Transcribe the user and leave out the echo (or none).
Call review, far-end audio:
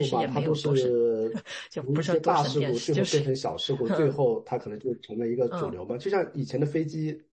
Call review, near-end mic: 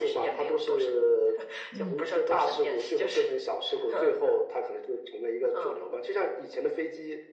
嗯